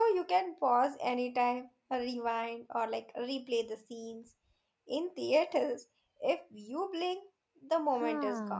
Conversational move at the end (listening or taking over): taking over